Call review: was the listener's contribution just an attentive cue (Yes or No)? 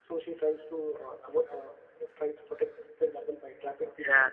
Yes